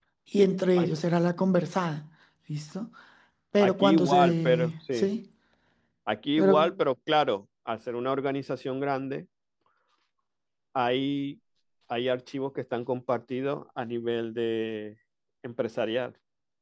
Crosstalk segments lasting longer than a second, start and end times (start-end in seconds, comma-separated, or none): 3.6-5.1